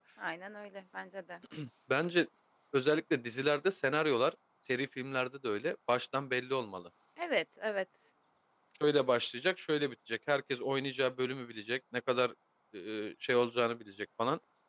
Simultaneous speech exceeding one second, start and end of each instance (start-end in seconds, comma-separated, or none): none